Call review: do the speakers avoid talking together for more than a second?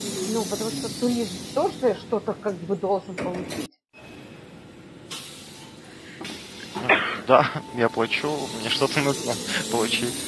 Yes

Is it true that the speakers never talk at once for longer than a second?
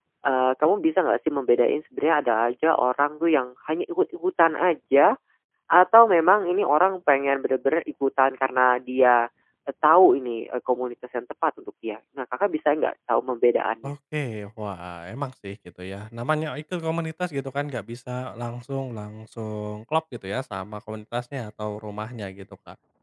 Yes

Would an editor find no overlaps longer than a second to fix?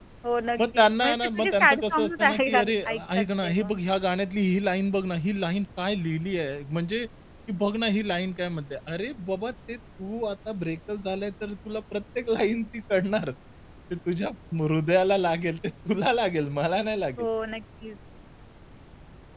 No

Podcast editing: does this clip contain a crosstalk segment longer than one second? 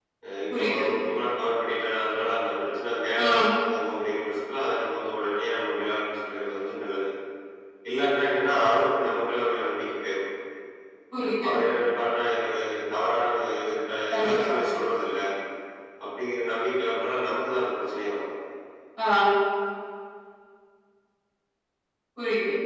No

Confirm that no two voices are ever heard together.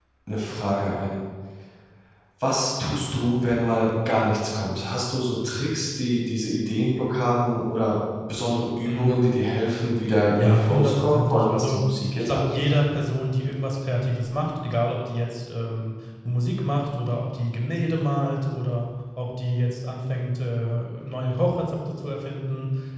No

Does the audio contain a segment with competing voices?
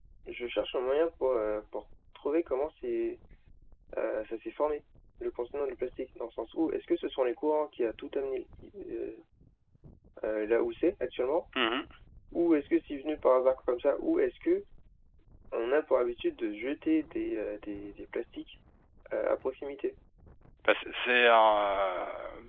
No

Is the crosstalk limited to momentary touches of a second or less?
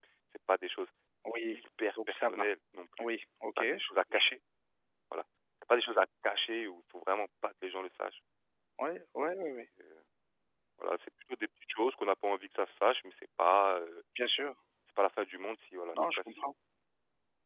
Yes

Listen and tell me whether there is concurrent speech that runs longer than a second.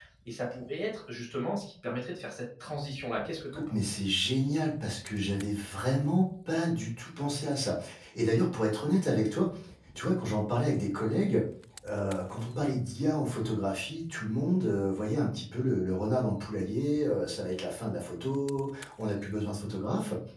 No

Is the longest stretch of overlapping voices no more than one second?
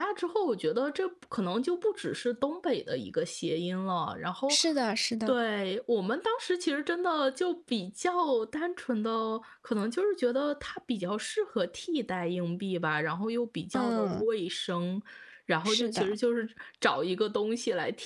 Yes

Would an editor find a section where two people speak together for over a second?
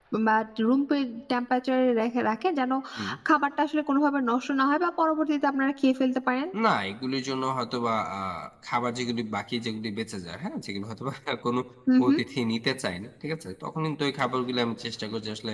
No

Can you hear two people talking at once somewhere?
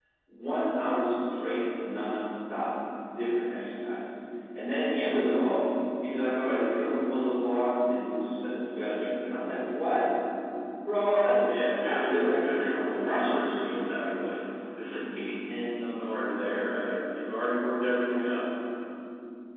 Yes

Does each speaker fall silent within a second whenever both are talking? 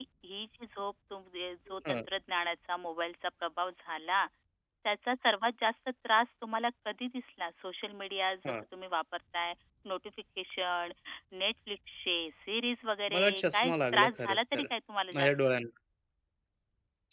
No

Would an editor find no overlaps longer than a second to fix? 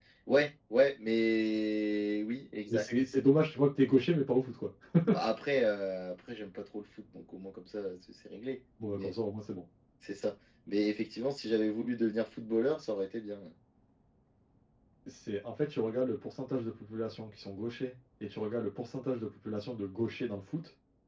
Yes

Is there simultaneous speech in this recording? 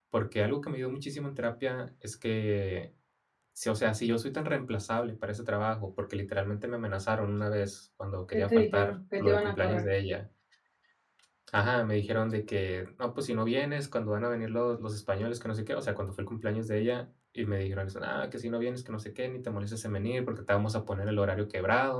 Yes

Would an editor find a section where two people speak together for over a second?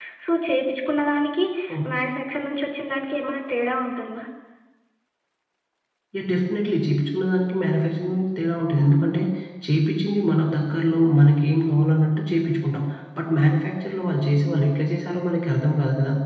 No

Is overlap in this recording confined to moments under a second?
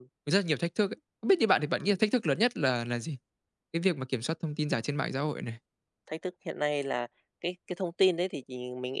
Yes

